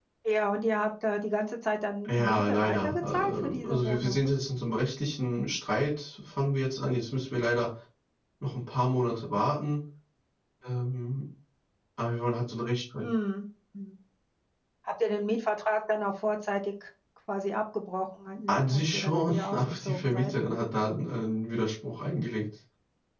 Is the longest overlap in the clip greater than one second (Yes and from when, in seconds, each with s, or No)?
Yes, from 2.1 s